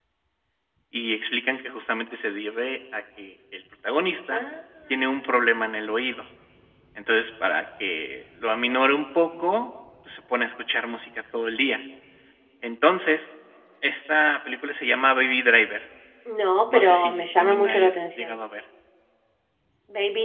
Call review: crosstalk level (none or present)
present